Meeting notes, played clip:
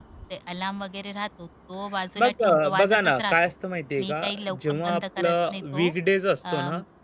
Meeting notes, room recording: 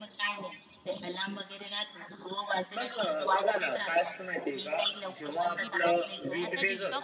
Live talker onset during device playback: 5.6 s

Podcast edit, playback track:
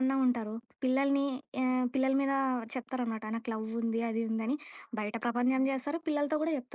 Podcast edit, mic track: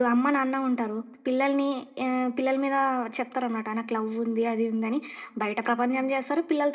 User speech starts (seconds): none

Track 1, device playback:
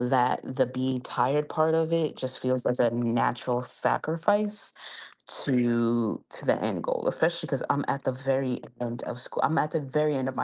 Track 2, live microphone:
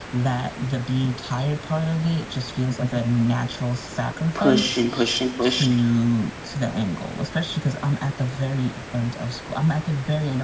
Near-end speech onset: 4.4 s

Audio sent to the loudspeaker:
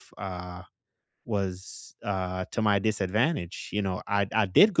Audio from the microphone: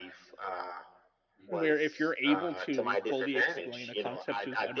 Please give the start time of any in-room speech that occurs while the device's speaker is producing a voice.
1.5 s

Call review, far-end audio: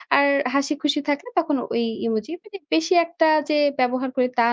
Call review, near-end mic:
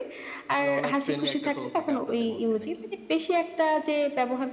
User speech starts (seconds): 0.6 s

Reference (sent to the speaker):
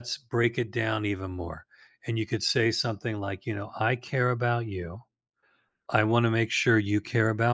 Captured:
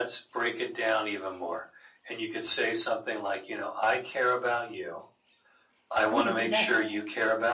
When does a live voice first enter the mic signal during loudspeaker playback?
6.0 s

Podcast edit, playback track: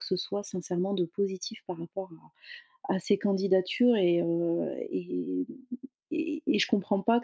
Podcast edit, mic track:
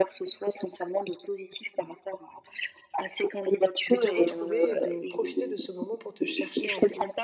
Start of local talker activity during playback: 3.9 s

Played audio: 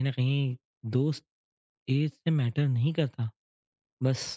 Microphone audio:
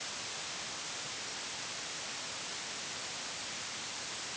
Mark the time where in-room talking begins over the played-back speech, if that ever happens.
none

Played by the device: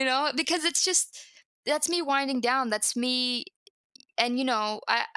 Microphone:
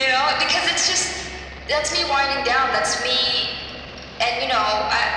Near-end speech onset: none

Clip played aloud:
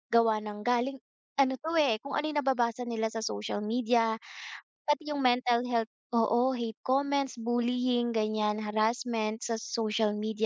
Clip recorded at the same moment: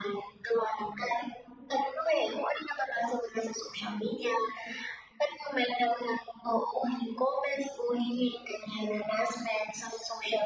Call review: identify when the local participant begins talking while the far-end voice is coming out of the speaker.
none

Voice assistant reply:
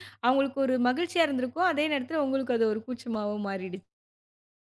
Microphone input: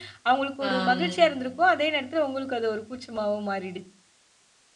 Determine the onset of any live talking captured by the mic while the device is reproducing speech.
0.6 s

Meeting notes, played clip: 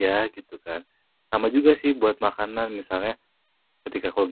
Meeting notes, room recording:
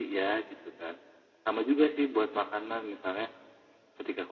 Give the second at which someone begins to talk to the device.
none

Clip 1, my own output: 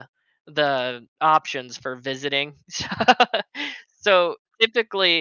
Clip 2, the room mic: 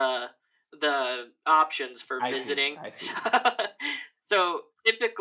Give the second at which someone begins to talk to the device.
2.2 s

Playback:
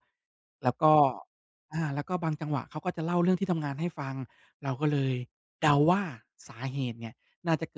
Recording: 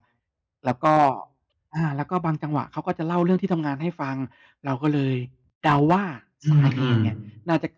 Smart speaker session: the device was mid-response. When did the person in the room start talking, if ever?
6.4 s

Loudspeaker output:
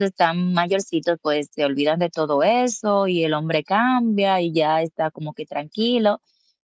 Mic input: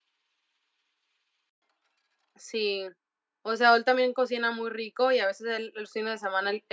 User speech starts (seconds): 2.4 s

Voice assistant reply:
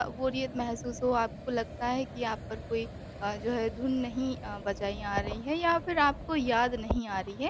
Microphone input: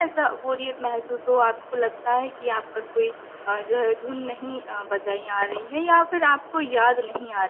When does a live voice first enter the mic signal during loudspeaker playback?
none

